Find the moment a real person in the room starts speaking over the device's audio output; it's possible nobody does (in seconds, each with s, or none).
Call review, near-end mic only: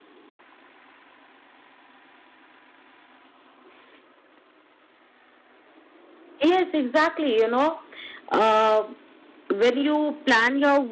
6.4 s